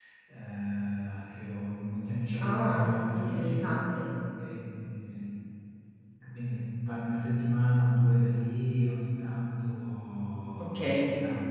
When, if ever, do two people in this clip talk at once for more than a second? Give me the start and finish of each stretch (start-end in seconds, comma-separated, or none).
2.4-3.7